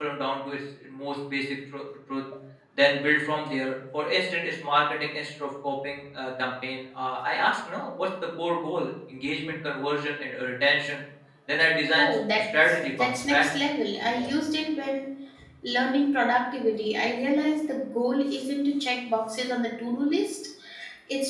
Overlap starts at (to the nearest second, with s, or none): 12 s